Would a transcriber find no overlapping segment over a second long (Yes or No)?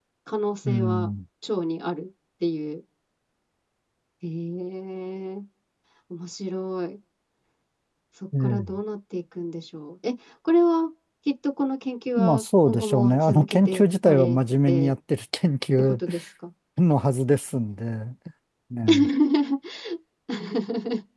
No